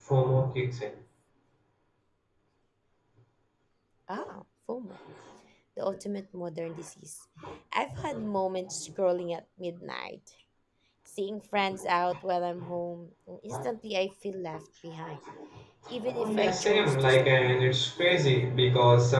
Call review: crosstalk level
present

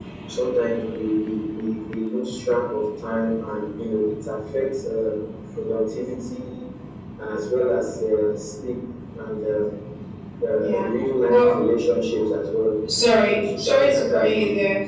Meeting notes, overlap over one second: present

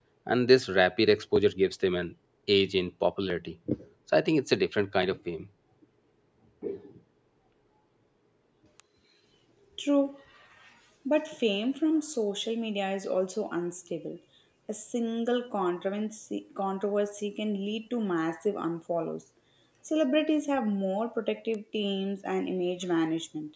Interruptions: none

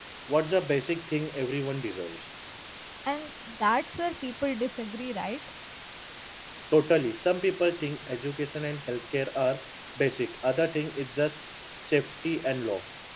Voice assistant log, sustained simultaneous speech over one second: none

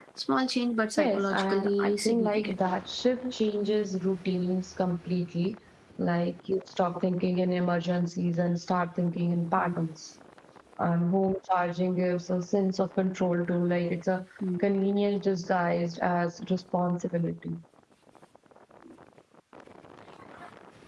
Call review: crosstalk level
present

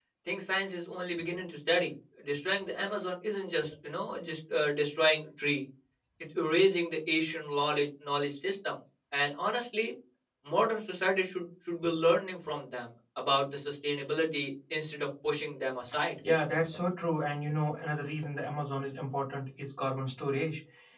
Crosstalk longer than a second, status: none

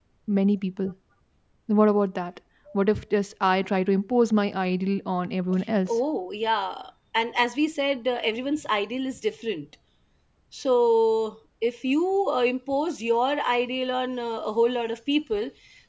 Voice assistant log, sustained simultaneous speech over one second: none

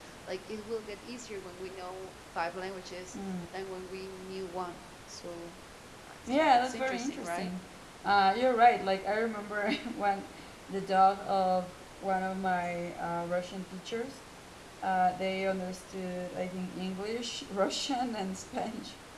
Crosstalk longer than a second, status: present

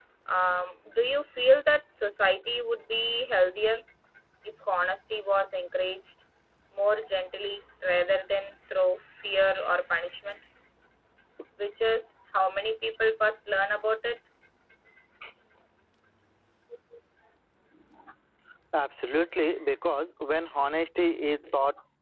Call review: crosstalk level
none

